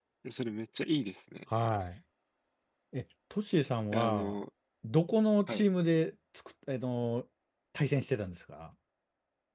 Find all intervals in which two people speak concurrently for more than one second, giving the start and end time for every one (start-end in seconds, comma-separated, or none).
none